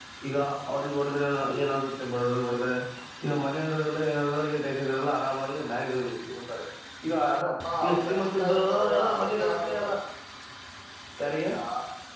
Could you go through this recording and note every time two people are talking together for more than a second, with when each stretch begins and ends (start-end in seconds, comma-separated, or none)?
7.8-9.9